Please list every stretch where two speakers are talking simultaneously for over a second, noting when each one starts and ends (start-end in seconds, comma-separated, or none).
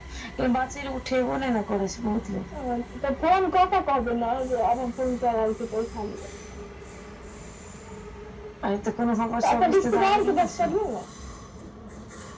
9.4-10.7